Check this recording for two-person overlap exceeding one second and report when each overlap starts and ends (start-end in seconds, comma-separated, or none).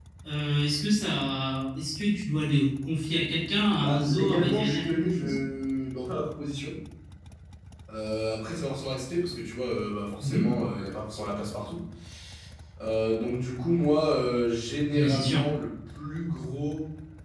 3.8-5.4